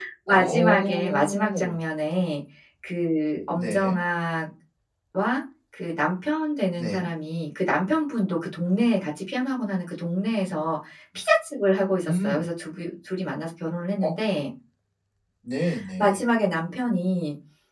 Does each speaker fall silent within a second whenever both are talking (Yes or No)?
No